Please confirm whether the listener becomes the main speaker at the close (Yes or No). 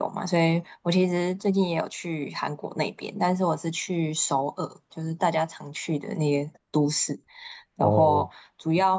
No